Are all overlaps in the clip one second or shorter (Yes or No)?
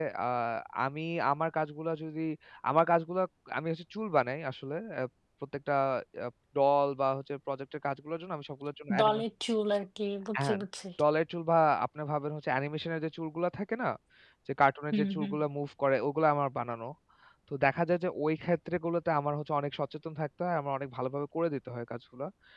Yes